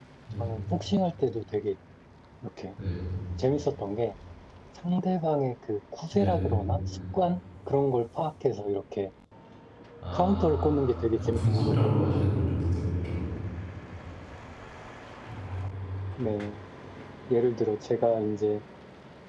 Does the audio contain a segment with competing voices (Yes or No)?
Yes